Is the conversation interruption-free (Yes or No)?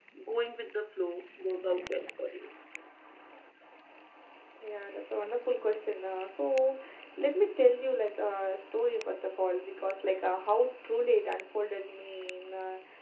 Yes